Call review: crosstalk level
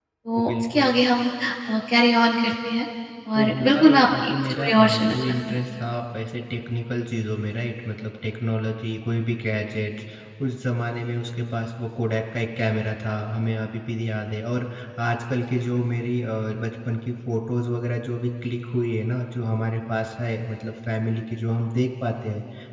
present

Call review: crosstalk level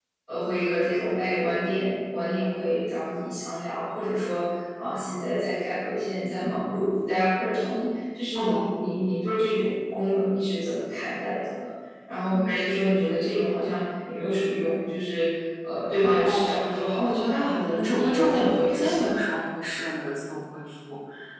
present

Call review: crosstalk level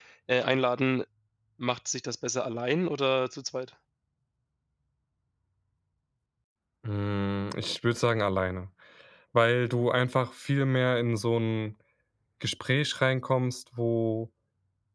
none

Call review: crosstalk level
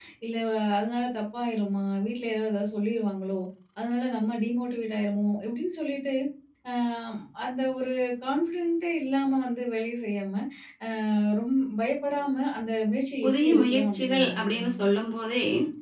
present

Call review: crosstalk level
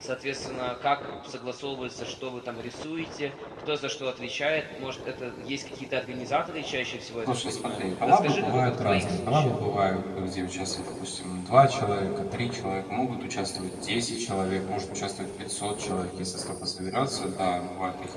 present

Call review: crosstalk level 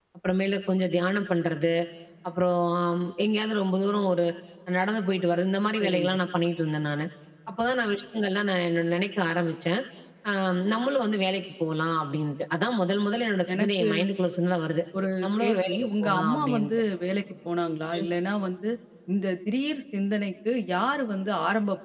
present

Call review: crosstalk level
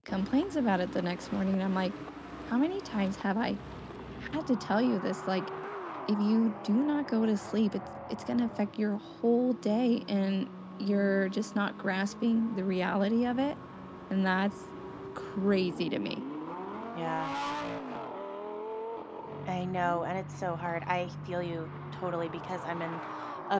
none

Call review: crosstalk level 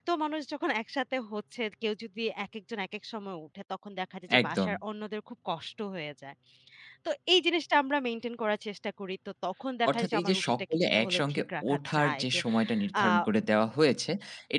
present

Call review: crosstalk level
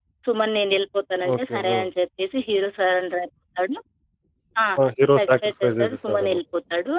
present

